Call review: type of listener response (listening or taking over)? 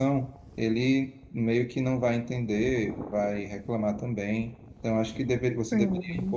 listening